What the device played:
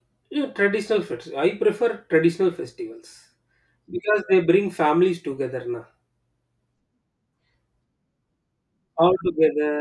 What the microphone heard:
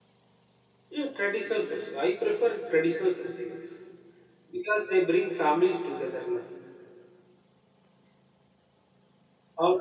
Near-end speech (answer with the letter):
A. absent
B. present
A